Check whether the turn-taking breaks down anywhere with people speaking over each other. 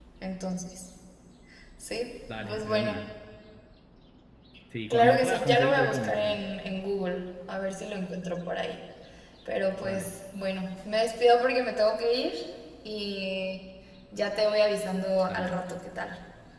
Yes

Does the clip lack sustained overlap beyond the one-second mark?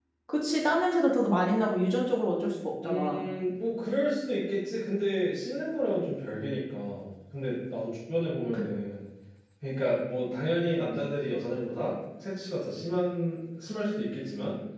Yes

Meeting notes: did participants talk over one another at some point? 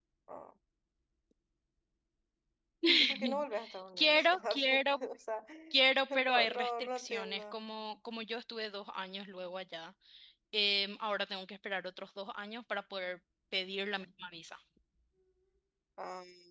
Yes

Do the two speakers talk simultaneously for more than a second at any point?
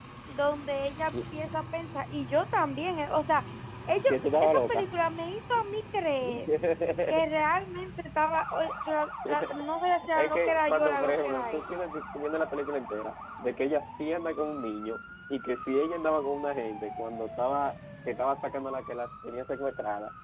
Yes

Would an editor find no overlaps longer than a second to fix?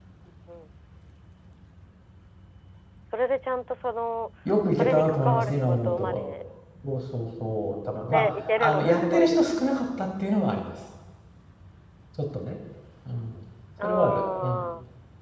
No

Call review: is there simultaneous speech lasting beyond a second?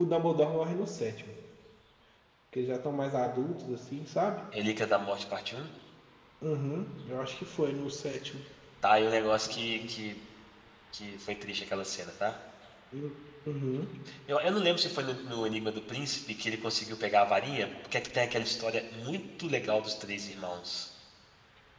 No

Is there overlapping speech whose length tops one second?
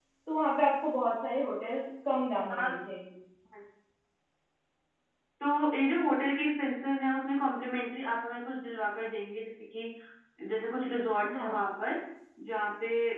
No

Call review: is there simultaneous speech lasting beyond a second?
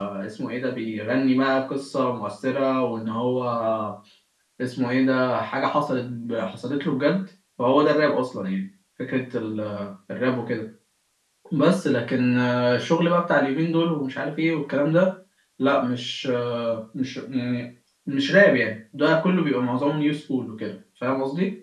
No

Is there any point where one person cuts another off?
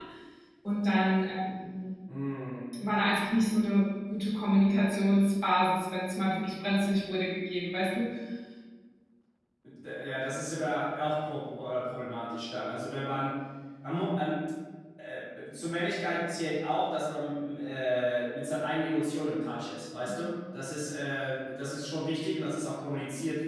No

